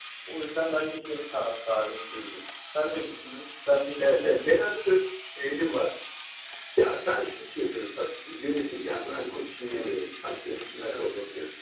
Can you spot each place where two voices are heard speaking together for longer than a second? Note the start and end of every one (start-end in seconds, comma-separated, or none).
none